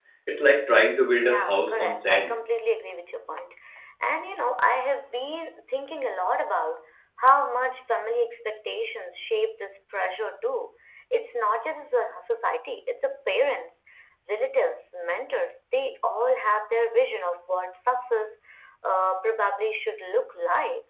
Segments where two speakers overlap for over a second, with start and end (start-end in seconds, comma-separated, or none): 1.2-2.4